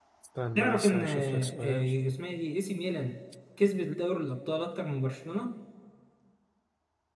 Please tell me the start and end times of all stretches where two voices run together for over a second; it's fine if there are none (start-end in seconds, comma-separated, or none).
0.6-1.9